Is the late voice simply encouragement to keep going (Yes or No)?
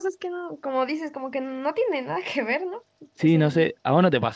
No